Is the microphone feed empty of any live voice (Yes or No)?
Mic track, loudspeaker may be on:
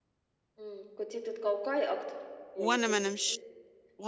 No